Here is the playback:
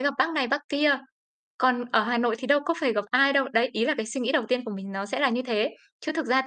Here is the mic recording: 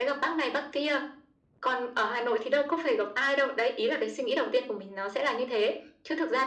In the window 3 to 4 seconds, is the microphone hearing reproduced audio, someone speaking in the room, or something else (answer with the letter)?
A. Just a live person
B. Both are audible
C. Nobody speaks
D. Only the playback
D